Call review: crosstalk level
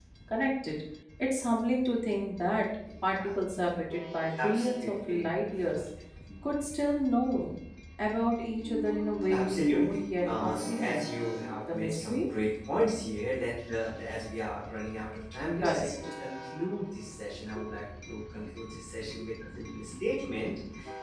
present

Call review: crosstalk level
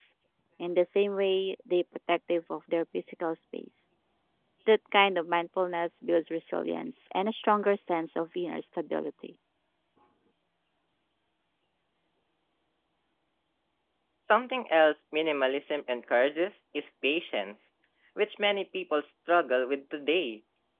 none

